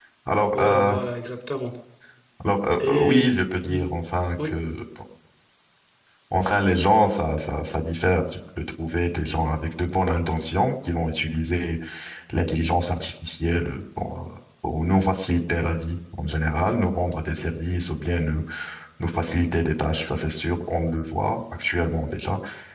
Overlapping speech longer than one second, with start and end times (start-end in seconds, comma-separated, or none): none